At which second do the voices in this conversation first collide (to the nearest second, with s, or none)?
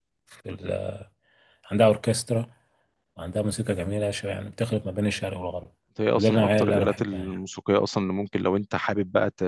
6 s